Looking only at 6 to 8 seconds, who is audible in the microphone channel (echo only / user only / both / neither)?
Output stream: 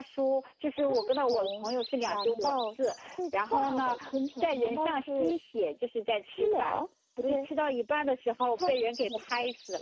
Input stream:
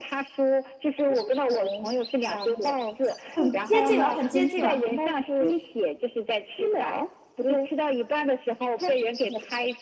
echo only